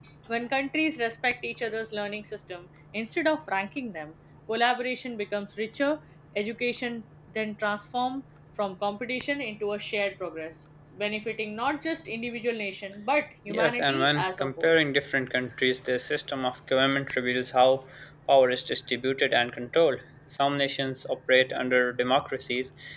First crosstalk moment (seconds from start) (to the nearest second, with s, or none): 13 s